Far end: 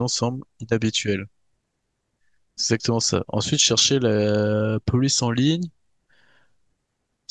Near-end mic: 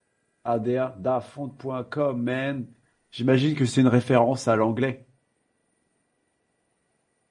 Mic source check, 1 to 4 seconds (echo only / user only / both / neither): user only